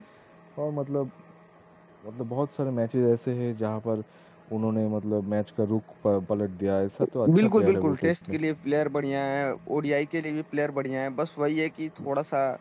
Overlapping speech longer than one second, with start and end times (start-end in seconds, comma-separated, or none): 7.0-8.4